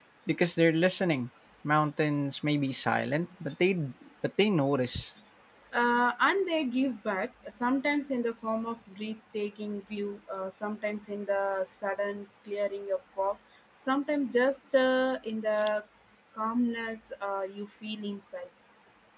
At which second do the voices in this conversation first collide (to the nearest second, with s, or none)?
none